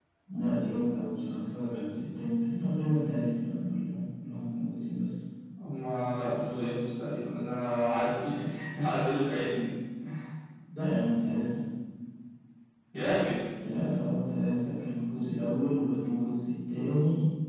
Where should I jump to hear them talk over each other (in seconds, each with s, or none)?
none